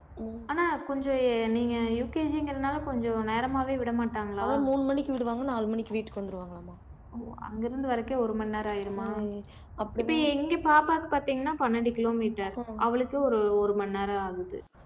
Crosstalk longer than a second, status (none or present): none